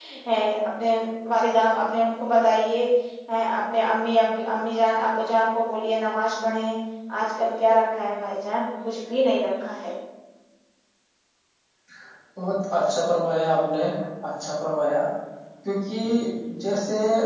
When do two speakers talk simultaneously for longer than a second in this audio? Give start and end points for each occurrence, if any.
none

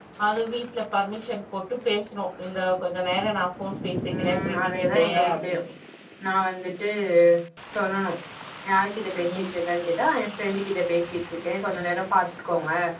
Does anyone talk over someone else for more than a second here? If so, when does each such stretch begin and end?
4.2-5.6

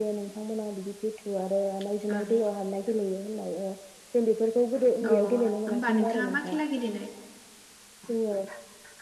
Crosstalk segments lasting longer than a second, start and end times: 5.1-6.6

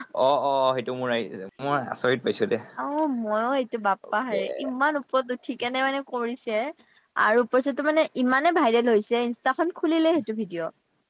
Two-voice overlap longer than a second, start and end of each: none

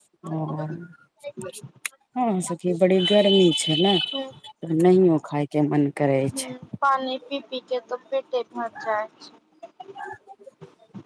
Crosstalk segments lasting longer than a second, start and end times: none

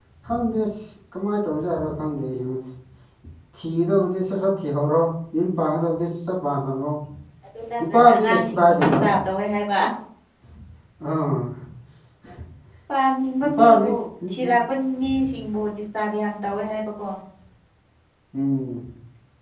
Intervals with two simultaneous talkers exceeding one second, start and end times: 7.8-9.0

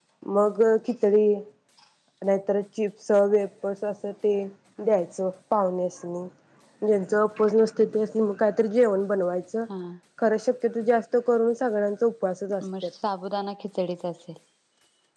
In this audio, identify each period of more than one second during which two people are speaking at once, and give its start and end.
none

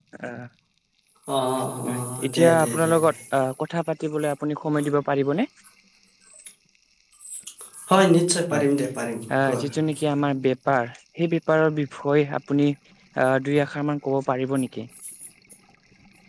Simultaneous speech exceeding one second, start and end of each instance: 1.9-3.1

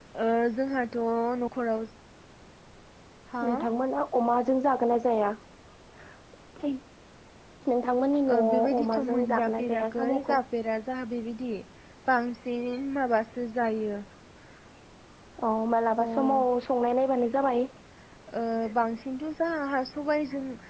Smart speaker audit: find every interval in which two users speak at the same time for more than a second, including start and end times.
8.3-10.4

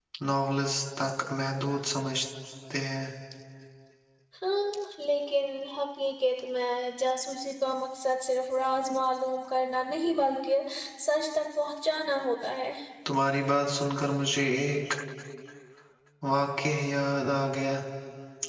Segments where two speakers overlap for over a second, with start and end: none

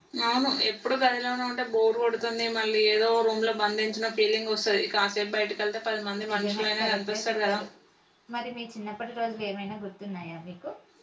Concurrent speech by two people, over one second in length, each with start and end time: 6.3-7.6

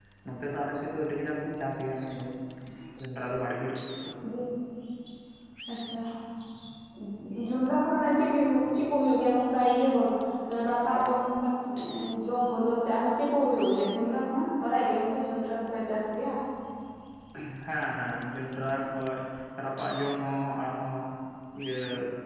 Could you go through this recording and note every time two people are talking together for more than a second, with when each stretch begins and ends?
none

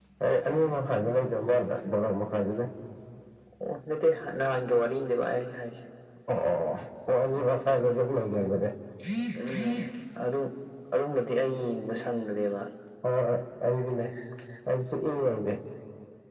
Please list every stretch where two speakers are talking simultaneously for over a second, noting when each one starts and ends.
none

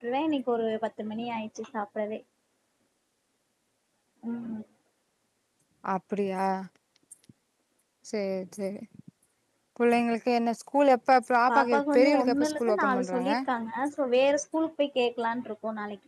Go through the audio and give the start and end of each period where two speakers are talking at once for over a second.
11.5-13.3

